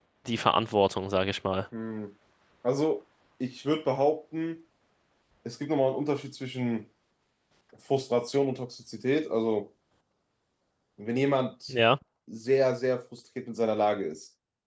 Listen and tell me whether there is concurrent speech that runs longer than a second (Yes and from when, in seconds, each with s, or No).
No